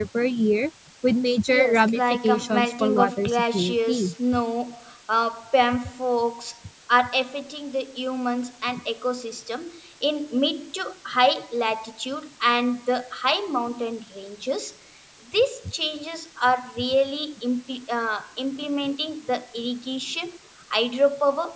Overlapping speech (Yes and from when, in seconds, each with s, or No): Yes, from 1.5 s